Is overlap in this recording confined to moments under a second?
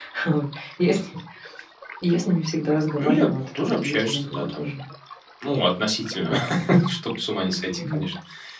No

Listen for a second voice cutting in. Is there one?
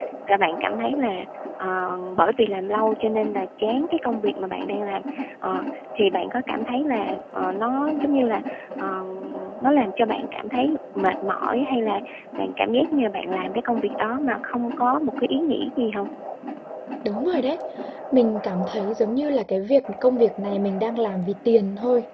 No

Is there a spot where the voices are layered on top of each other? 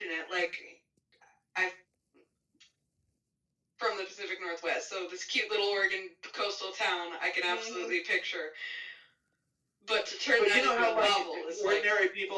Yes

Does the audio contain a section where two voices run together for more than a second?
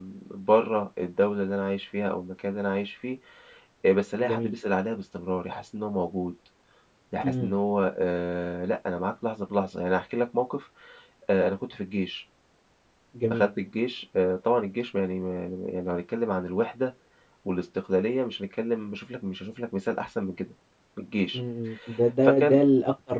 No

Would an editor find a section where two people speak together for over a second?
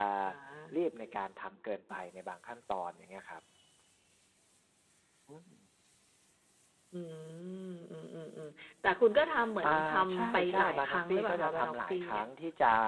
Yes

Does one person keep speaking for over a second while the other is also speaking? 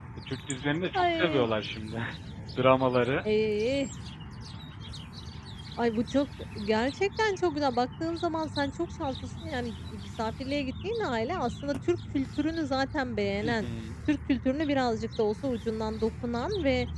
No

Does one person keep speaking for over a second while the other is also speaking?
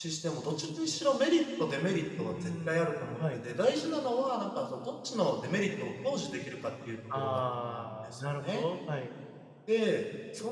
Yes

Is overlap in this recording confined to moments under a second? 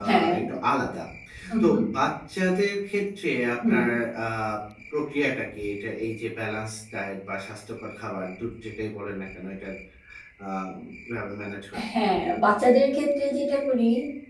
Yes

